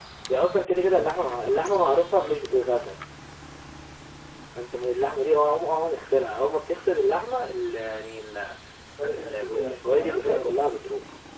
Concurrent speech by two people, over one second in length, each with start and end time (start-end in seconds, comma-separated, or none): 9.1-10.5